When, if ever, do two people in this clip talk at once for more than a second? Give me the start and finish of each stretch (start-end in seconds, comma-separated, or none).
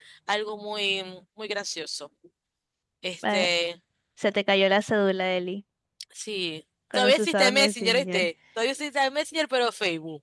6.9-8.3